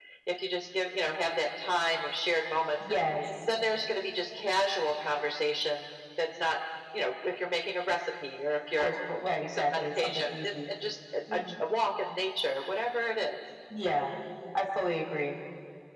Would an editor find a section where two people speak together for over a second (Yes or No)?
Yes